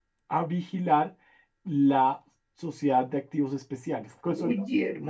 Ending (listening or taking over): taking over